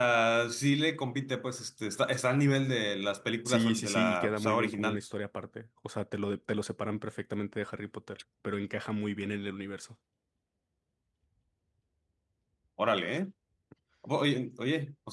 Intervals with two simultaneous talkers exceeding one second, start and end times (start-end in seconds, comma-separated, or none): 3.5-5.0